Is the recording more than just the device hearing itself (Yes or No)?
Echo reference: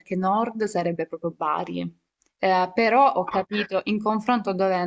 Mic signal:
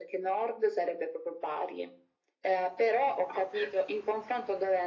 No